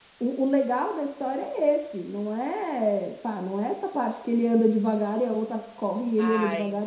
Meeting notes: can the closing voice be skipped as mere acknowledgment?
No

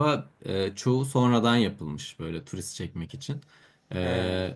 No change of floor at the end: Yes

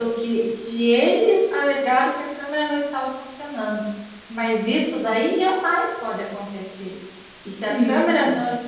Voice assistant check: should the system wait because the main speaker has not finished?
Yes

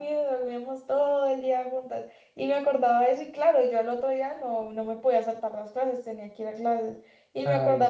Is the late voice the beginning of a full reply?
No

